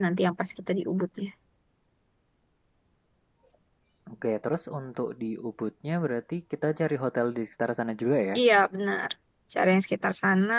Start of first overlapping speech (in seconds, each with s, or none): none